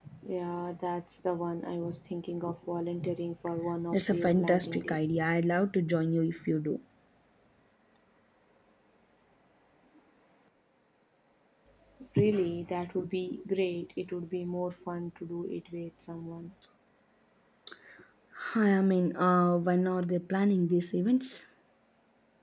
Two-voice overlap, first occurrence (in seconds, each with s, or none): 3.9 s